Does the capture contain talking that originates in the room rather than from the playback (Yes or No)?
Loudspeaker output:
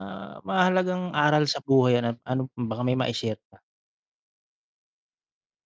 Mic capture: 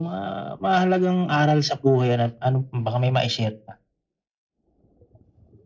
No